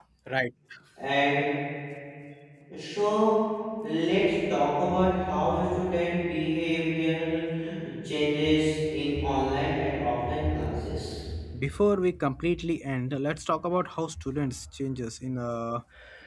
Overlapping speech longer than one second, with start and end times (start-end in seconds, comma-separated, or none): none